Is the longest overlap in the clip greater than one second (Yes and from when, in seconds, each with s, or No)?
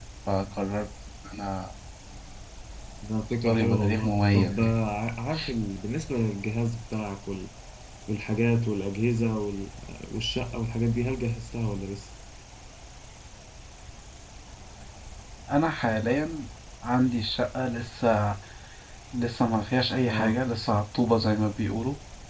Yes, from 3.4 s